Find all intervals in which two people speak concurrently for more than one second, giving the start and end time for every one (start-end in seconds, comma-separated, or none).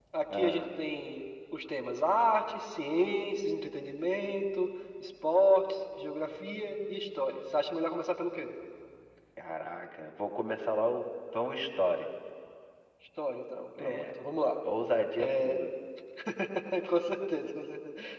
none